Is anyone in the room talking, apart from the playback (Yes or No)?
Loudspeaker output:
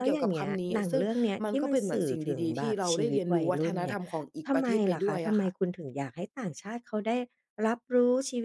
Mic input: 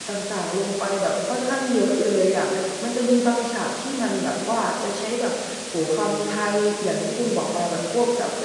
Yes